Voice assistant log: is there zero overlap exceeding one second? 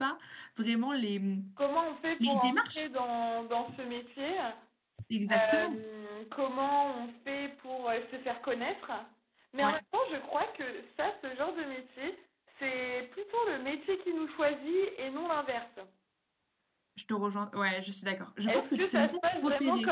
No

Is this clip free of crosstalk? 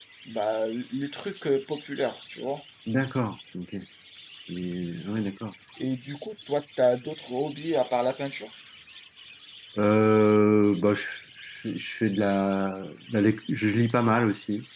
Yes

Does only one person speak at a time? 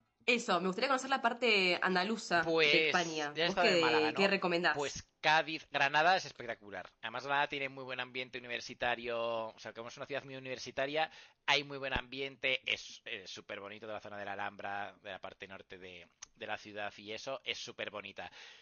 No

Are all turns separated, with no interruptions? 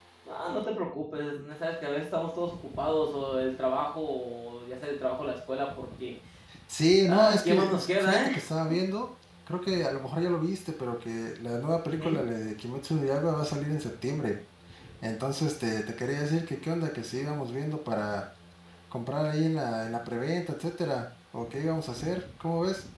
No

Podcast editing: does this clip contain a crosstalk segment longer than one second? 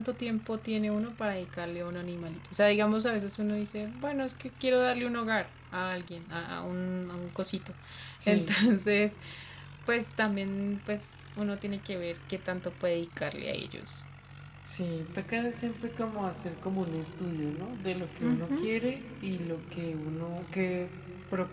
No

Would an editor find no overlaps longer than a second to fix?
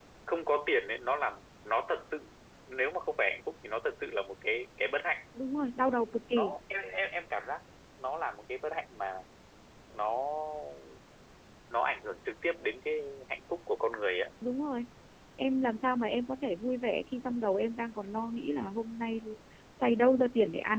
Yes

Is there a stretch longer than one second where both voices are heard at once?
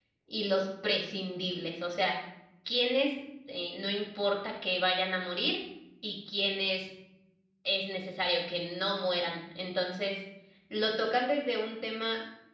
No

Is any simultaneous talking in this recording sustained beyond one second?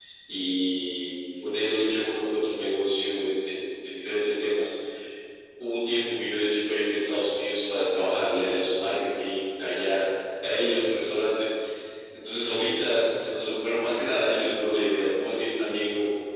No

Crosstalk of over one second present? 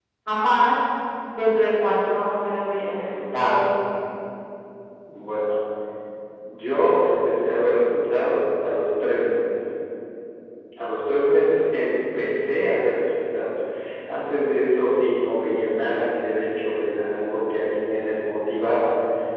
No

